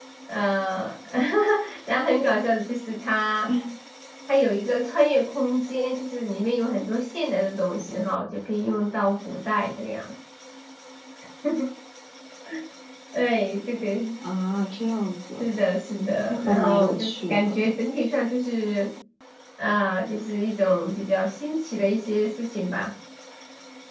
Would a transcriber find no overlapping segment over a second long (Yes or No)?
No